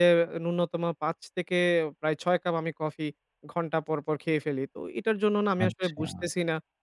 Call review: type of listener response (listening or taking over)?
listening